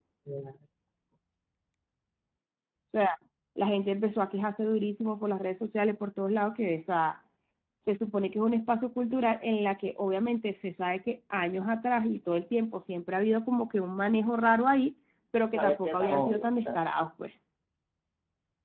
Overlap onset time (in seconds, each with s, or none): 15.5 s